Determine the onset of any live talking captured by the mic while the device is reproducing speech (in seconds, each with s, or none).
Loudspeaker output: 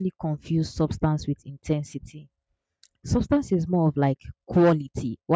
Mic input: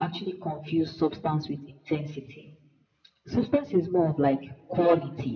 none